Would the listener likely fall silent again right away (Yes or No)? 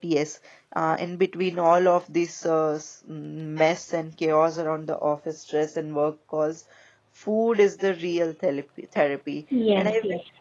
No